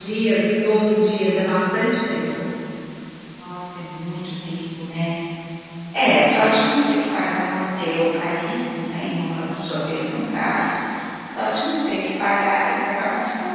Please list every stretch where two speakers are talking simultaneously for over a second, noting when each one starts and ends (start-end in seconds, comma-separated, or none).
none